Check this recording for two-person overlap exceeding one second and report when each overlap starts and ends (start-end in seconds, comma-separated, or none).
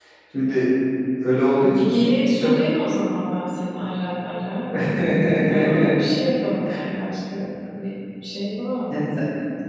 none